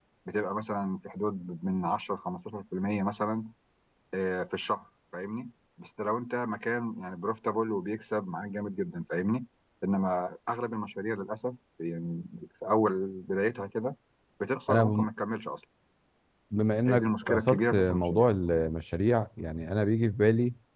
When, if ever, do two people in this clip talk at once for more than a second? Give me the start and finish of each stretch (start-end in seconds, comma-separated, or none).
16.9-18.3